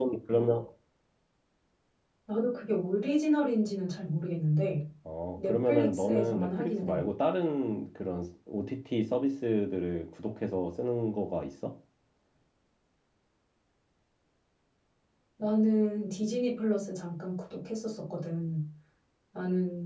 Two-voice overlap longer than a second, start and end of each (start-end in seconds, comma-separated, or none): 5.4-7.0